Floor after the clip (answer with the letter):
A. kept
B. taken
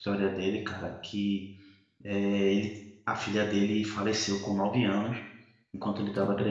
A